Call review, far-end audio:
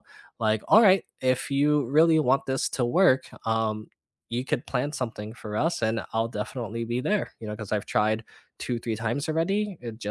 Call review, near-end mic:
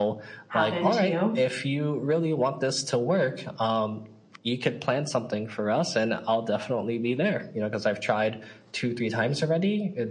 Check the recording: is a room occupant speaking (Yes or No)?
Yes